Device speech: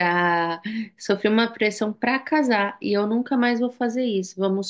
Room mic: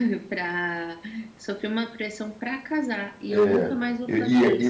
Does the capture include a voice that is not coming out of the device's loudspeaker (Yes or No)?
Yes